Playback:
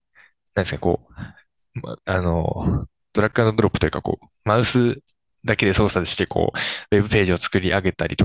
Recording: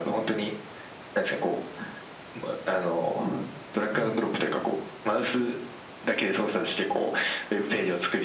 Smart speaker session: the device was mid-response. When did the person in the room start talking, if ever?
4 s

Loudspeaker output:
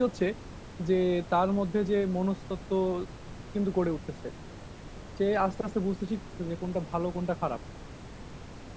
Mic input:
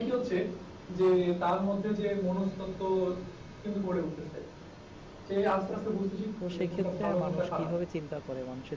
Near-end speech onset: 6 s

